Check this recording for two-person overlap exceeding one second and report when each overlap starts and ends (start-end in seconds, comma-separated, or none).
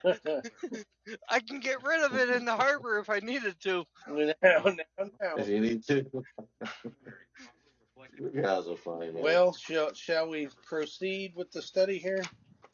none